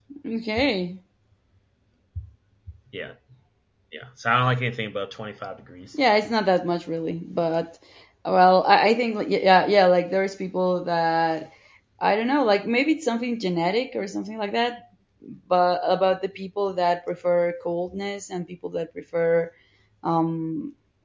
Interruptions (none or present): none